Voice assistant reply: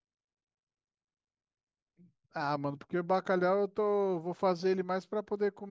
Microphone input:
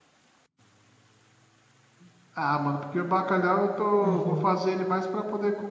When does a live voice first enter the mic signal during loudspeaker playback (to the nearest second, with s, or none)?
4 s